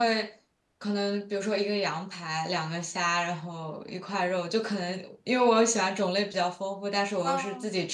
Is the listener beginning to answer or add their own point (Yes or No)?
No